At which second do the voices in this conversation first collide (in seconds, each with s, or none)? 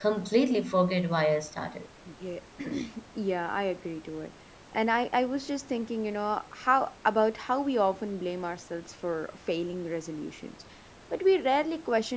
none